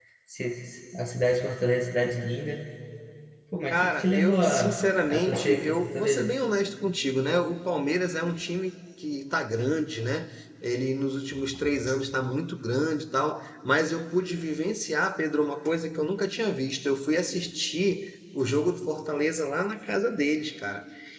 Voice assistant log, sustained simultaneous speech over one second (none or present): present